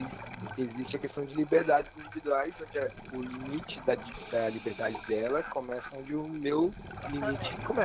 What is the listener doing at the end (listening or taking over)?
taking over